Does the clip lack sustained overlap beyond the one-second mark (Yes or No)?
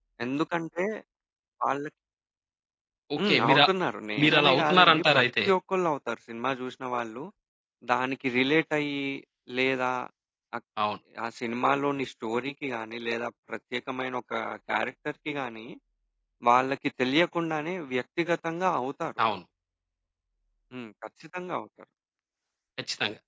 No